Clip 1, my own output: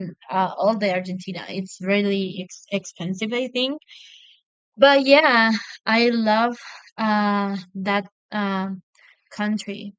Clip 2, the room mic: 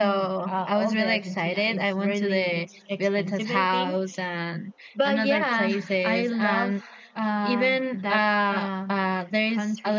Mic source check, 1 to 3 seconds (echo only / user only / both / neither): both